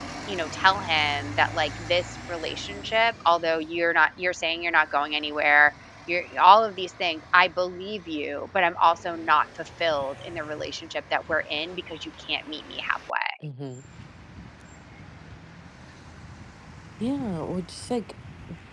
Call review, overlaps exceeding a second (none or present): none